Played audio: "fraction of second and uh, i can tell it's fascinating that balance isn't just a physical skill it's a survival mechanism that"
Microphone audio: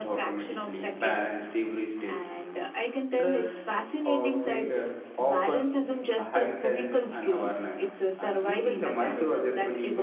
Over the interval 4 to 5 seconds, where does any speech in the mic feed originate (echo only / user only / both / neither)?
both